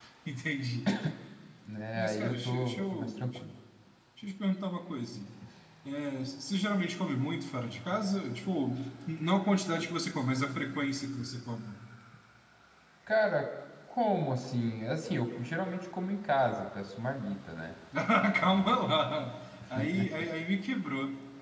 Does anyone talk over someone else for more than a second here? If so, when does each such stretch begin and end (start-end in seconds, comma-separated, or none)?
1.9-3.4